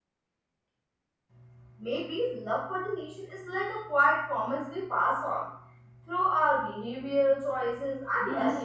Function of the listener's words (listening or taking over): taking over